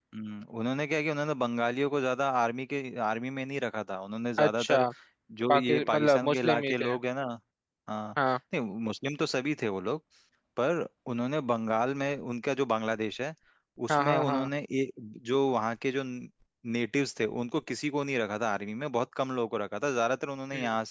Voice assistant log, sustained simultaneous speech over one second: present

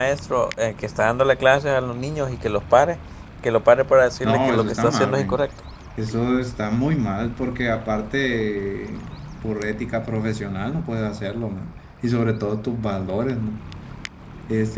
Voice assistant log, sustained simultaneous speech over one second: present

